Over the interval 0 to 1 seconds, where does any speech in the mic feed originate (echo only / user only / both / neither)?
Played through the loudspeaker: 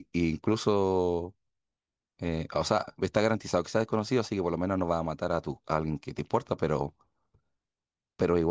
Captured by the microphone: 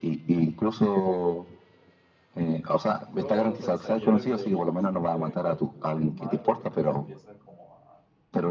echo only